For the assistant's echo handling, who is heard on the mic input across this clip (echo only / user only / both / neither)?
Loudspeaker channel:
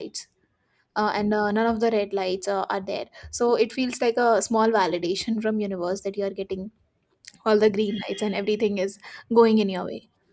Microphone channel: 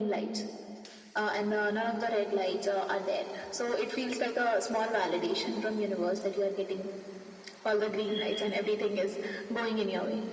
echo only